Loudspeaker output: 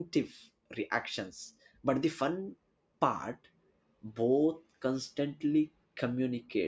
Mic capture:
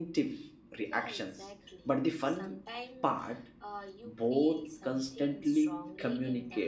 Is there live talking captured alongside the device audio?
Yes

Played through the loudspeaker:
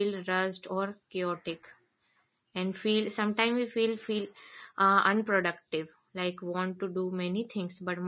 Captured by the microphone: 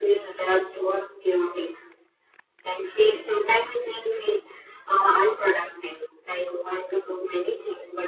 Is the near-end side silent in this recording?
Yes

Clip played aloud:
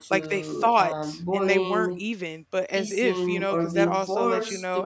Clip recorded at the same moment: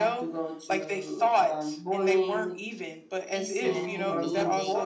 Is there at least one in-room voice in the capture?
Yes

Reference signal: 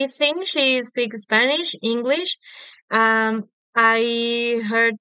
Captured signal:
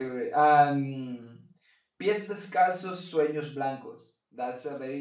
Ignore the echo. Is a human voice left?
Yes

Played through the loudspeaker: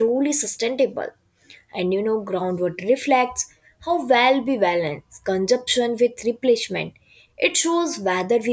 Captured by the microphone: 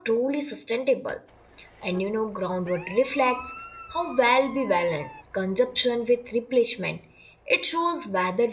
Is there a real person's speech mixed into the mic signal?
No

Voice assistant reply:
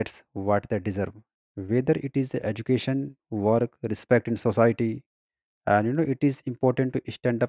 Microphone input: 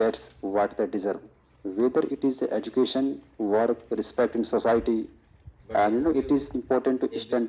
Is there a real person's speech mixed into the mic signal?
Yes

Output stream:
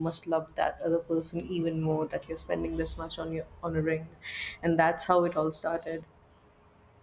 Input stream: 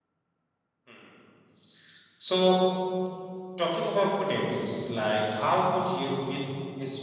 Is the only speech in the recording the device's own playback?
No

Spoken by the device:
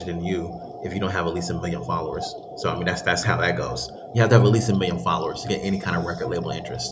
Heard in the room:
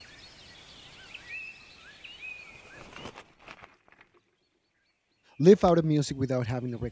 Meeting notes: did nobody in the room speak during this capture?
No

